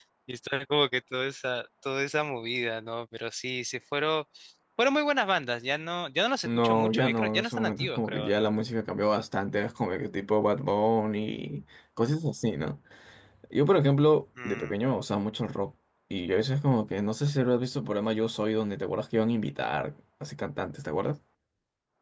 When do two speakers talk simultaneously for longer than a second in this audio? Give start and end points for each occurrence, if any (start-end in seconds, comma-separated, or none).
6.4-8.5